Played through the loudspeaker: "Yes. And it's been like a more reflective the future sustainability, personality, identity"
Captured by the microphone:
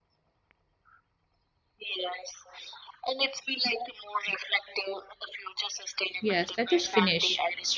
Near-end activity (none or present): present